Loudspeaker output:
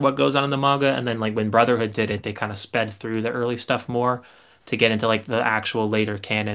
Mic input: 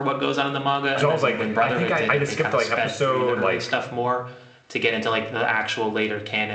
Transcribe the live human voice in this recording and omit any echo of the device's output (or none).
Because I was like, I think I, I just skipped like episode like